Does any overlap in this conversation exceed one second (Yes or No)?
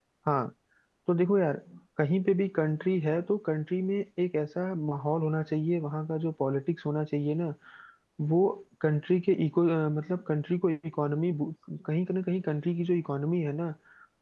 No